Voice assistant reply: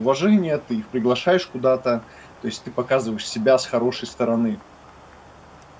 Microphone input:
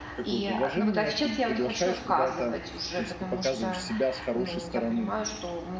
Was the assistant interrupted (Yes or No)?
Yes